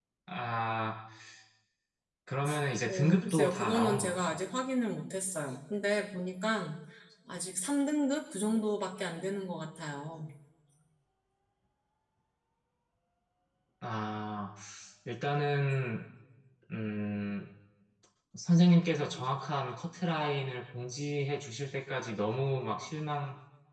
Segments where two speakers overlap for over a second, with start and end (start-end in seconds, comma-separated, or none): 2.8-4.4